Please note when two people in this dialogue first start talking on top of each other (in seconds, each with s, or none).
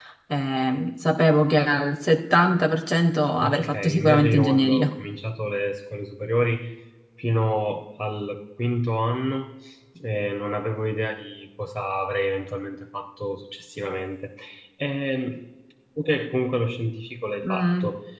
3.4 s